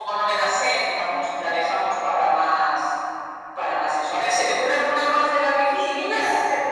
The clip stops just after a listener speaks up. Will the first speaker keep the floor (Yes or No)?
No